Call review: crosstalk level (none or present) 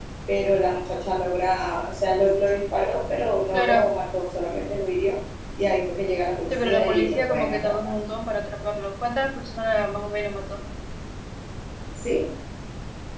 present